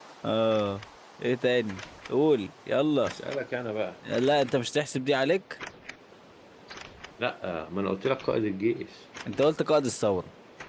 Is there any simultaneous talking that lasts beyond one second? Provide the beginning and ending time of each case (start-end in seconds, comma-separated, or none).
none